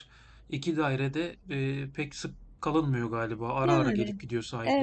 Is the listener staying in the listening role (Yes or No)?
No